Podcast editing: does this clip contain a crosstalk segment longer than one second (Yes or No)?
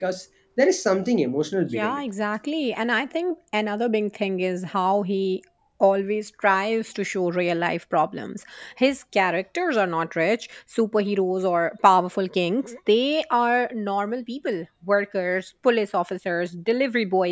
No